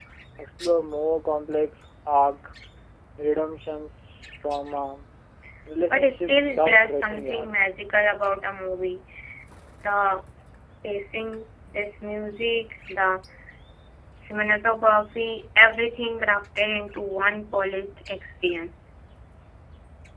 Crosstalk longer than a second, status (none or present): present